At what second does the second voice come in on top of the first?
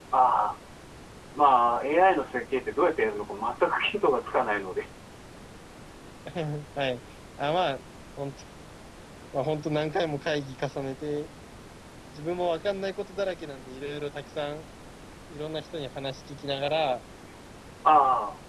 none

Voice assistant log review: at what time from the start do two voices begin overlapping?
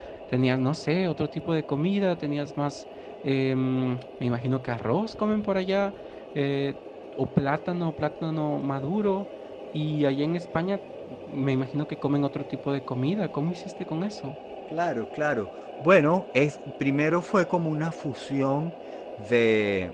none

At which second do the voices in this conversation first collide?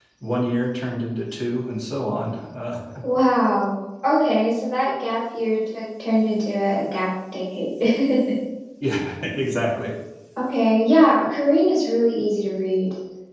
none

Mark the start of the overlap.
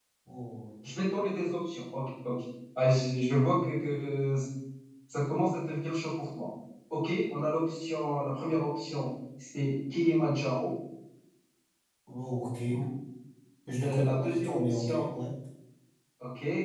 13.8 s

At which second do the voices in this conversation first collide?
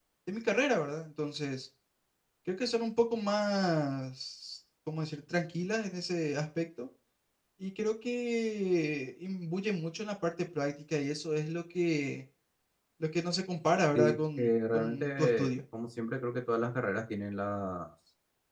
13.9 s

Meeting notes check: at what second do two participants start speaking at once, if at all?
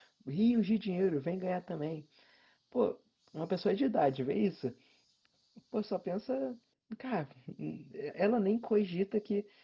none

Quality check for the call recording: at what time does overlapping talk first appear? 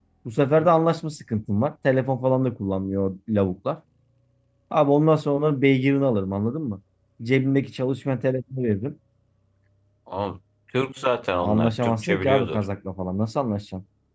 11.4 s

